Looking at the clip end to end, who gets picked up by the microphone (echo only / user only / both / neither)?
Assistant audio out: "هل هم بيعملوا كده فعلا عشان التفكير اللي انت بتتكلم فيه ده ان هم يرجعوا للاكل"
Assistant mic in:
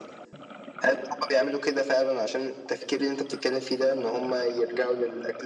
echo only